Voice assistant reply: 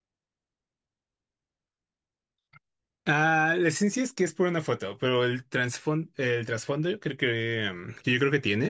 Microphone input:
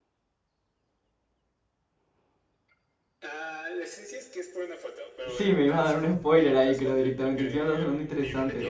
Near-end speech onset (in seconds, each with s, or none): 5.2 s